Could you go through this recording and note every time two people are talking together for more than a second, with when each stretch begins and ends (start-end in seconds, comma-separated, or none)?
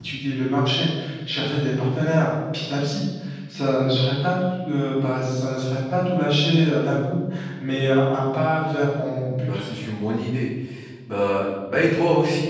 none